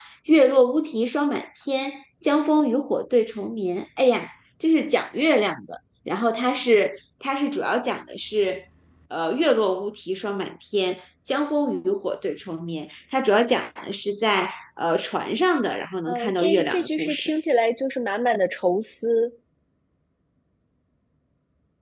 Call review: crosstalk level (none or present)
present